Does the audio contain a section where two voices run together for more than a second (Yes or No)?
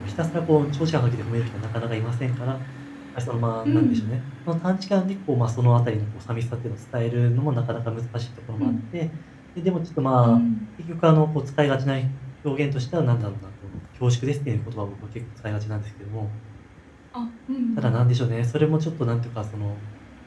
No